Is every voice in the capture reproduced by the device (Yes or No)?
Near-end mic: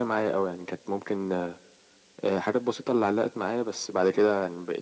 Yes